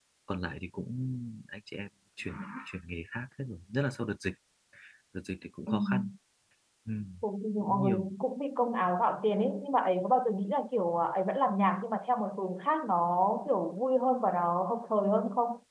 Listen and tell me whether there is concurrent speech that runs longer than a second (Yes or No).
No